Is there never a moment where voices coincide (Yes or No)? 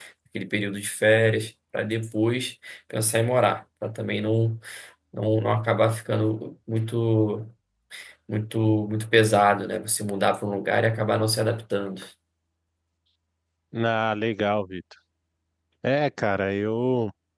Yes